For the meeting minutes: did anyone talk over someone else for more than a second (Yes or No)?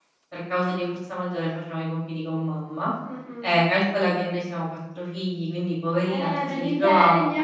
Yes